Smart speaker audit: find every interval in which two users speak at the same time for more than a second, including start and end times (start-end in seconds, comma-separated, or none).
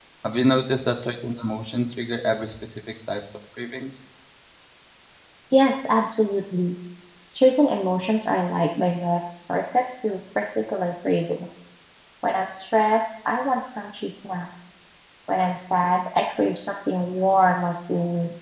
none